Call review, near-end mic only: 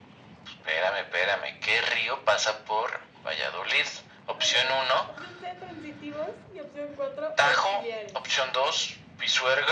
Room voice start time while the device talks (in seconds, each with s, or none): 4.4 s